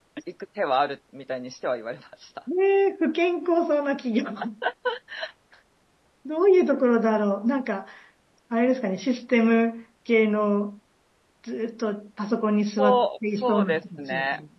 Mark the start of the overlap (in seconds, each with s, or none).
12.8 s